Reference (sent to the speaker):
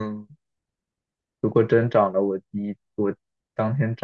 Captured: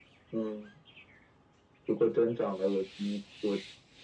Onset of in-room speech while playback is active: none

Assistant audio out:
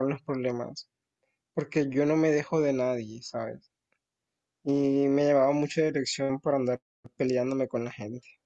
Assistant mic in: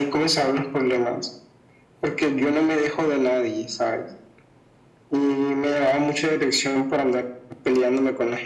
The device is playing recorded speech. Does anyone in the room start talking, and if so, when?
none

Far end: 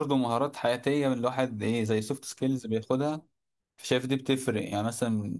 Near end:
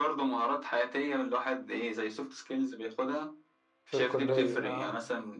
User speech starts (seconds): 3.9 s

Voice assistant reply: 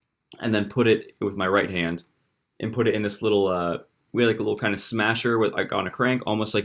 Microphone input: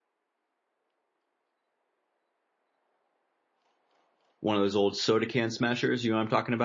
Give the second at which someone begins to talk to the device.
4.4 s

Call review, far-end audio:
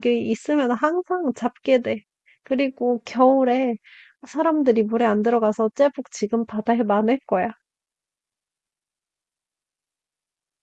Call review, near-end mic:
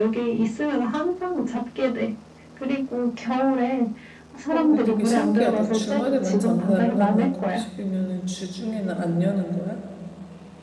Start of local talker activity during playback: 4.5 s

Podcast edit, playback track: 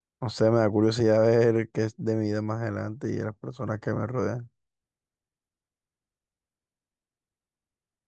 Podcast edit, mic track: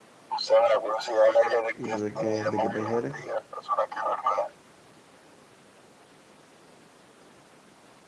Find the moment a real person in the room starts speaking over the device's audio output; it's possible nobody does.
1.7 s

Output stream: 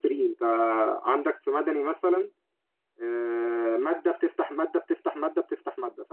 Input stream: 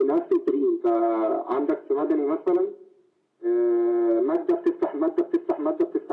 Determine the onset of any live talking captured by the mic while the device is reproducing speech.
none

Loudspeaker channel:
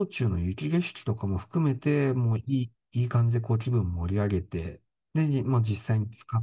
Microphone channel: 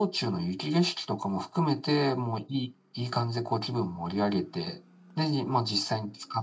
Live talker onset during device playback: none

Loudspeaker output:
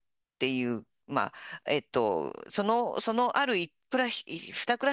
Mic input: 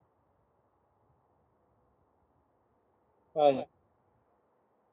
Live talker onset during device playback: 3.3 s

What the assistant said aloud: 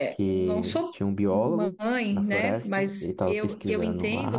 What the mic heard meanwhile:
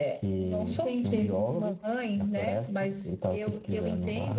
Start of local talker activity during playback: 0.7 s

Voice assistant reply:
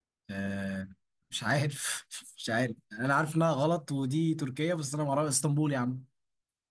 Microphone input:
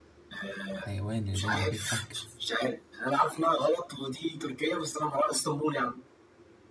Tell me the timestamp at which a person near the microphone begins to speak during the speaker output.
0.7 s

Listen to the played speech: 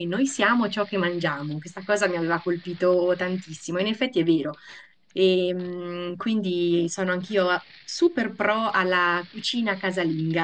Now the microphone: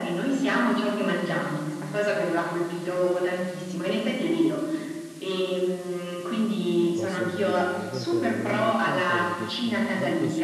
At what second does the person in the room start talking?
6.9 s

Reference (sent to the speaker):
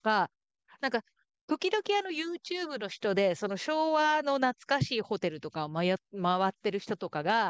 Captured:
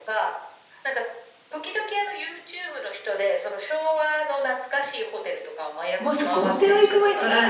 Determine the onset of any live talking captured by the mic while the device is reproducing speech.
6.0 s

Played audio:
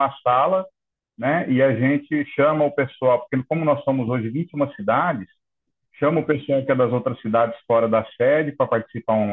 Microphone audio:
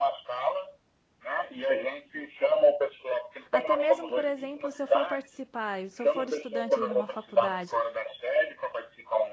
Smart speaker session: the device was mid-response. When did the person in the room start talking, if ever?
3.5 s

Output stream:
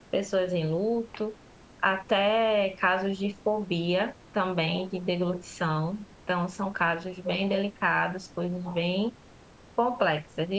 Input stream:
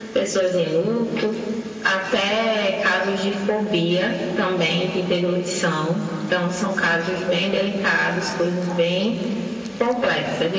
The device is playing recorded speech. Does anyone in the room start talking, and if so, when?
none

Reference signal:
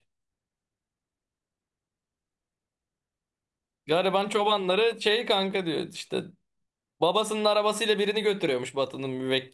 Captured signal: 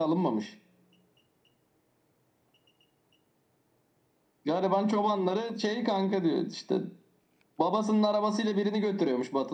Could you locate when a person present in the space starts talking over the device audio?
none

